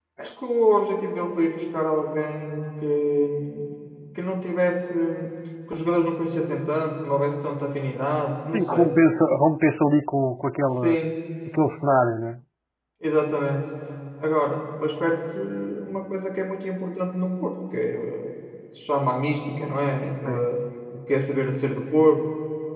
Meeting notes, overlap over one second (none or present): none